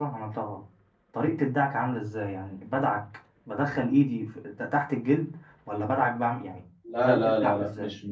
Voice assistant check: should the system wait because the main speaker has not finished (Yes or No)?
No